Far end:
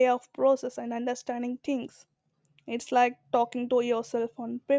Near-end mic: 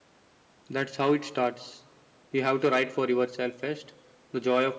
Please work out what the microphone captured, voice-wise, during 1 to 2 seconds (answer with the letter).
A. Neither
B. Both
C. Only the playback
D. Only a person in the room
D